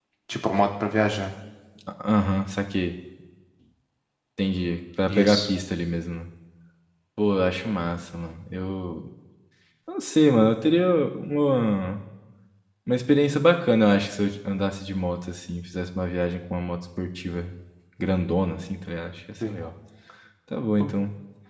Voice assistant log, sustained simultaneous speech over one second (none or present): none